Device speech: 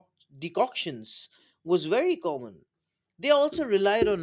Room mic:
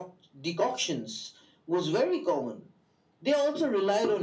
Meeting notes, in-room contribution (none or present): none